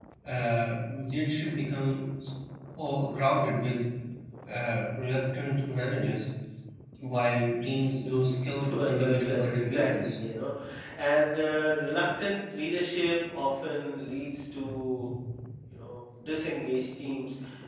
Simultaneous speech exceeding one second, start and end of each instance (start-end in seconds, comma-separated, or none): 8.7-10.2